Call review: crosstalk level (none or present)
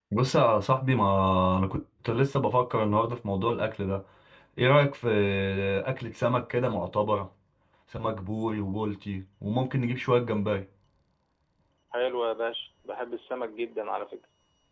none